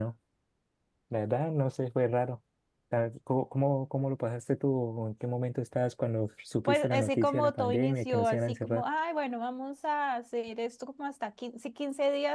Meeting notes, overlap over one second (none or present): present